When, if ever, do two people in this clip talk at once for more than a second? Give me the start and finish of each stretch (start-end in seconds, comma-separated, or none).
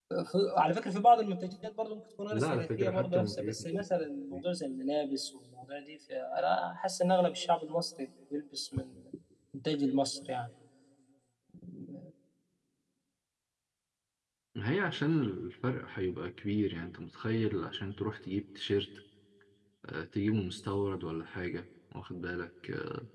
2.3-3.8